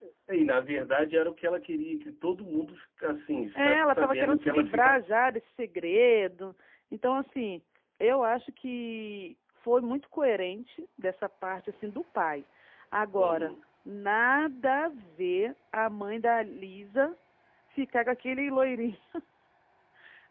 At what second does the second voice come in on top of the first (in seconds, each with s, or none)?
3.6 s